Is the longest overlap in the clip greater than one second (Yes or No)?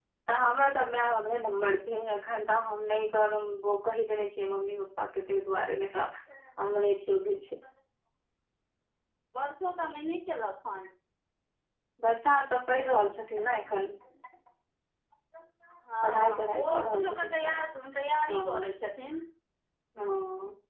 Yes